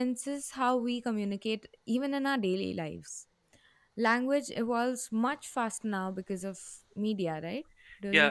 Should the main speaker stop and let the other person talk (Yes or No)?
Yes